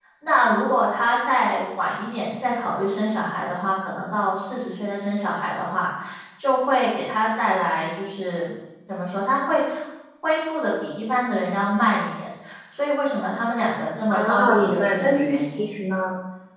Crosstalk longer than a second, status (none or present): present